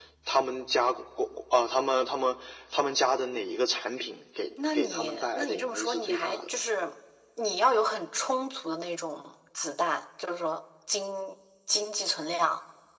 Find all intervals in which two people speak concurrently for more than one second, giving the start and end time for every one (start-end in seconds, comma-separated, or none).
4.7-6.4